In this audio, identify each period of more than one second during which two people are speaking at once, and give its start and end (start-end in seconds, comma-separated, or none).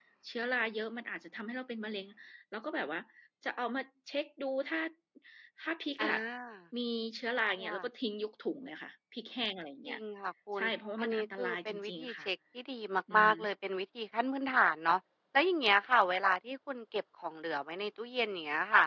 11.0-12.3